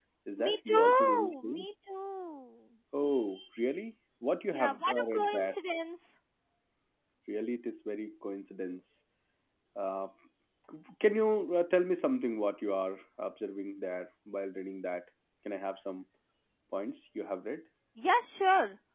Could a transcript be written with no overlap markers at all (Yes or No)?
No